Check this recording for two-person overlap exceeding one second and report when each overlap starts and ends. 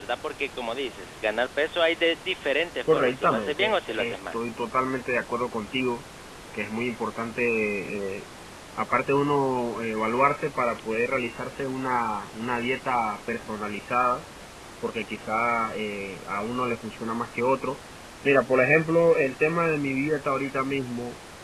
2.9-4.4

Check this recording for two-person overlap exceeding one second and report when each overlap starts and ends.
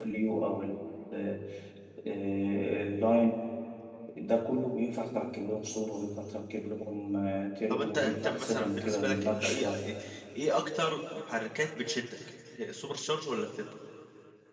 7.7-9.8

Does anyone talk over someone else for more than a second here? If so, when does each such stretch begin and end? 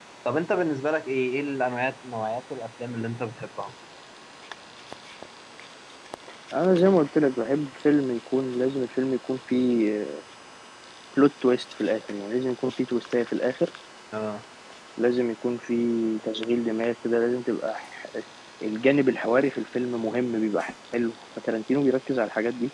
none

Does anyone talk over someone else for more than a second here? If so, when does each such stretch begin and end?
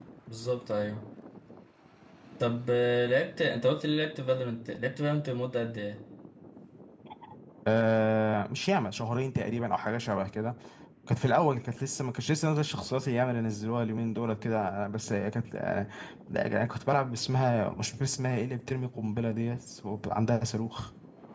none

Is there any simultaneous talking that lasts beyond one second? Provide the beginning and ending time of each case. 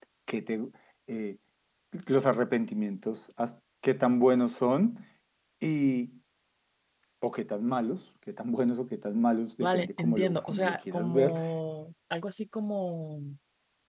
9.6-11.3

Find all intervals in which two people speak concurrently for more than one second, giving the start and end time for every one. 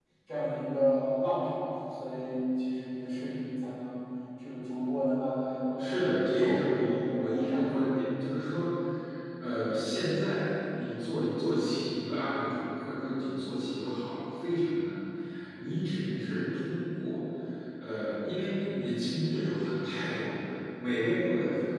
5.8-7.7

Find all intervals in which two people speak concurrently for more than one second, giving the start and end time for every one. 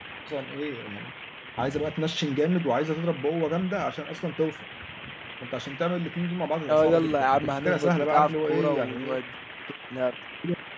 6.7-9.2

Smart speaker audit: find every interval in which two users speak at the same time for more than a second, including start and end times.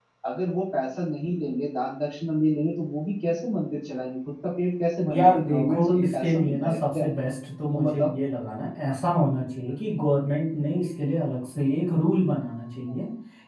5.1-7.0

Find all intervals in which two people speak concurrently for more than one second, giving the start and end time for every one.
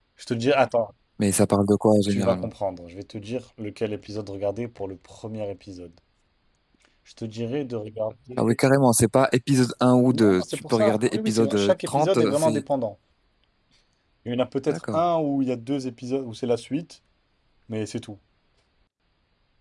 10.1-12.6

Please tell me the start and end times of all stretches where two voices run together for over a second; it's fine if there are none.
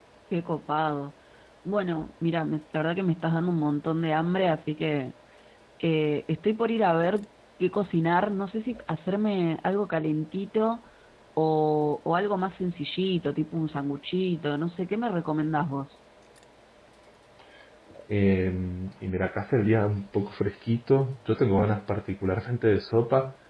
none

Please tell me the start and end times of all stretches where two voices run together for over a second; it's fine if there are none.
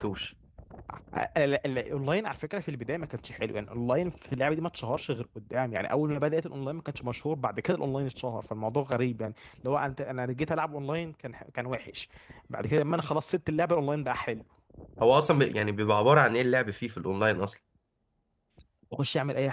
none

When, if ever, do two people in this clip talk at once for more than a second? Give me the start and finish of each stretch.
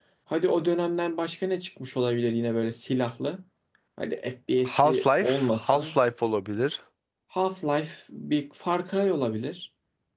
4.7-6.0

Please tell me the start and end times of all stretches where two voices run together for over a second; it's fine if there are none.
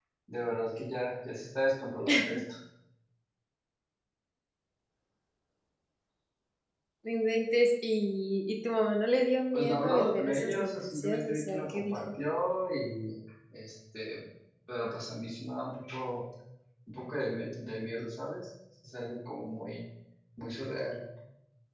9.5-12.0

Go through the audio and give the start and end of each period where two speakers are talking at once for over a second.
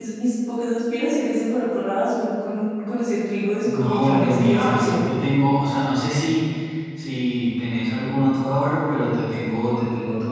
3.6-5.2

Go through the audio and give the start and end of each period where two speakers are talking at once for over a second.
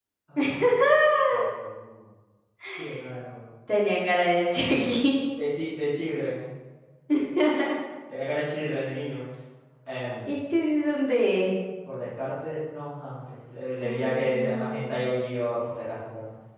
13.8-15.0

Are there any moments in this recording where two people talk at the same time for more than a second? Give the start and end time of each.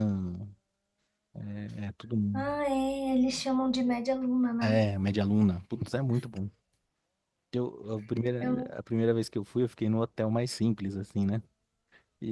none

